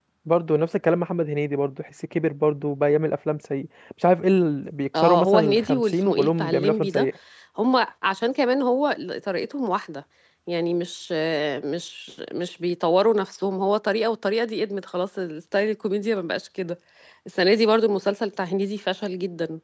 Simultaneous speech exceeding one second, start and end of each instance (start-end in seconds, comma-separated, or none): 4.9-7.1